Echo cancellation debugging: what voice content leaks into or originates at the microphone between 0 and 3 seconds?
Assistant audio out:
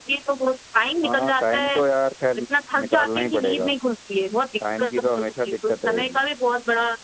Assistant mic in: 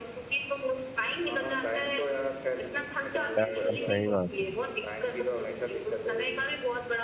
echo only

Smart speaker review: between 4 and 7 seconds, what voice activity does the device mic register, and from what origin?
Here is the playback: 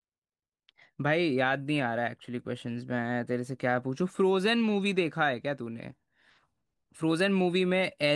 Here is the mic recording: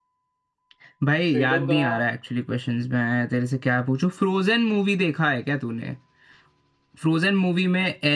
echo only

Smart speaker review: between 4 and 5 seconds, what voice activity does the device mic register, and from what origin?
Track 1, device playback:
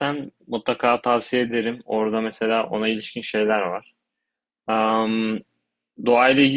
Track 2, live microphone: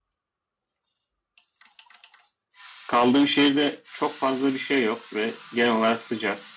user only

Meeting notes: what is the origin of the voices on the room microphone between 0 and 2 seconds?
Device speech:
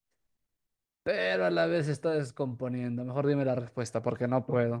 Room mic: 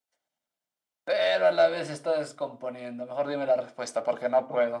echo only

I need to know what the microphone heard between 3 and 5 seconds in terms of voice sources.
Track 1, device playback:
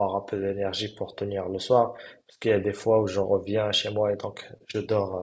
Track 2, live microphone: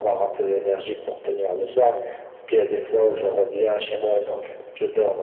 echo only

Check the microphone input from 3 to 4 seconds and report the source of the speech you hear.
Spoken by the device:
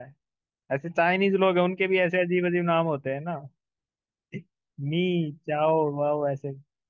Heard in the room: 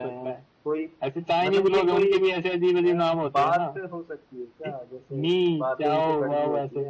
both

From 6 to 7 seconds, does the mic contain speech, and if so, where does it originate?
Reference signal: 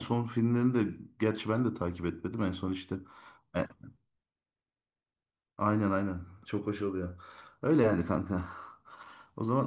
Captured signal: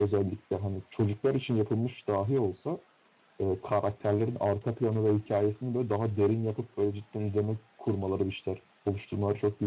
user only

